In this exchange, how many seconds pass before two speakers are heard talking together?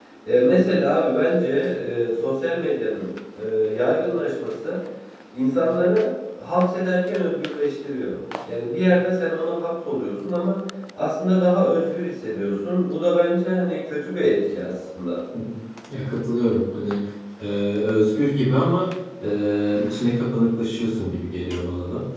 none

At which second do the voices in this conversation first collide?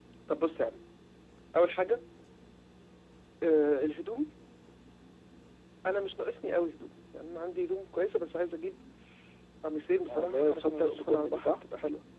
10.1 s

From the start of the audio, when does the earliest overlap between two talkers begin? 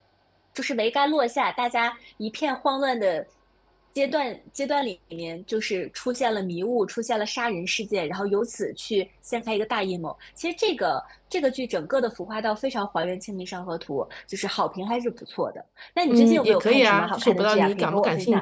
16.1 s

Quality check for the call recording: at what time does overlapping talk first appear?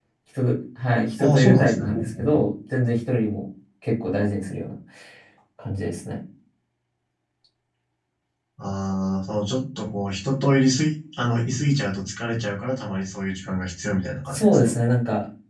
1.2 s

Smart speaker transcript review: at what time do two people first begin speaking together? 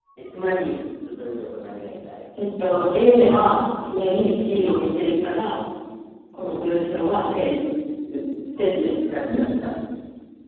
none

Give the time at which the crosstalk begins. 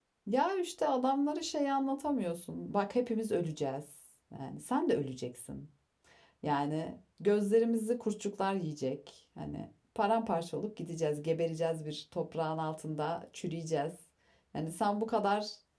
none

